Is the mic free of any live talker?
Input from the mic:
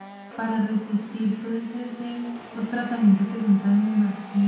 No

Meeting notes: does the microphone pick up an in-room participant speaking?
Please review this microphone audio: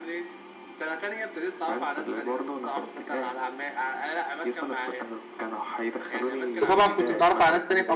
Yes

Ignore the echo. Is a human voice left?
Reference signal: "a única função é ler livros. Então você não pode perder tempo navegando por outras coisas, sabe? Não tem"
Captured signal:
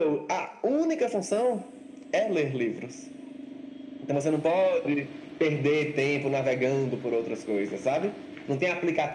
No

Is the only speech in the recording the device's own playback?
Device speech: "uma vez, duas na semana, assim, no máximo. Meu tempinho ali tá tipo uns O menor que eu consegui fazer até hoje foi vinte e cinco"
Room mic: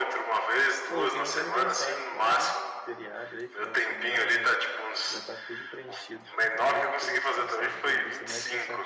No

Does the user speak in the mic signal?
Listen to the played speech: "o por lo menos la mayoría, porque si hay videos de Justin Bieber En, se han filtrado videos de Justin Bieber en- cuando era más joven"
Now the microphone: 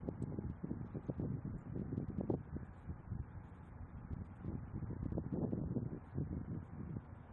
No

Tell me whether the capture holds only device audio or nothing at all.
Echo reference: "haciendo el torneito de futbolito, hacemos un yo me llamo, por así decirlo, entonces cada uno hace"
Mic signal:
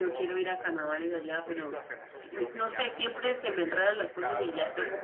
No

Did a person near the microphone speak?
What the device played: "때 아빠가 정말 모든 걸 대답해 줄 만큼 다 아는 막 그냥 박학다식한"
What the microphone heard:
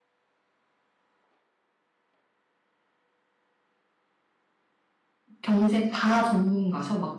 Yes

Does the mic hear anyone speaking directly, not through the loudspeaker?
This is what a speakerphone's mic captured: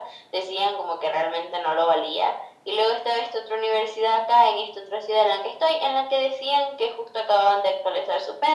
No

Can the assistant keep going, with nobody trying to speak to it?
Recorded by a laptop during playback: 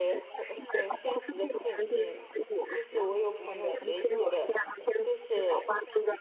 No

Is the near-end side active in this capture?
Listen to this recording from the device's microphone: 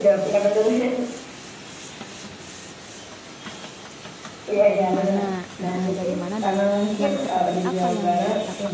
Yes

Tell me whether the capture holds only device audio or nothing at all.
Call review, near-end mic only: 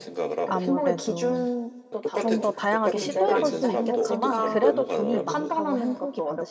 No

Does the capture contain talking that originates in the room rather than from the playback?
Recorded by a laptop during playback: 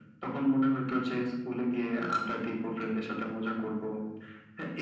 No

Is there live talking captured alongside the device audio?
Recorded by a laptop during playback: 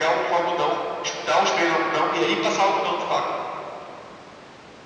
No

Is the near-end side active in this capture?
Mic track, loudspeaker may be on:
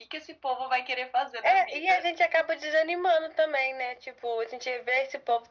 No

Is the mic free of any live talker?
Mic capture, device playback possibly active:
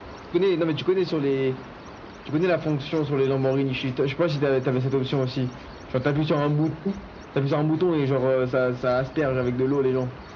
Yes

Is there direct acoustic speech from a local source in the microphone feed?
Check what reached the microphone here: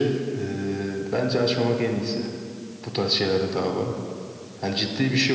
No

